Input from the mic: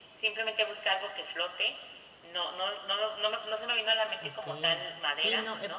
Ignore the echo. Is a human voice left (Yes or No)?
Yes